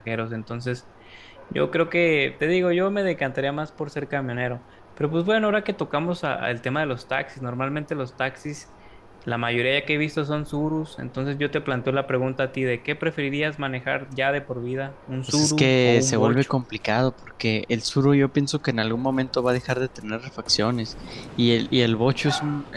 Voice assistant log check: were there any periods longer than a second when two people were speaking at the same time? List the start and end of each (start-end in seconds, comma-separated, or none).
15.3-16.5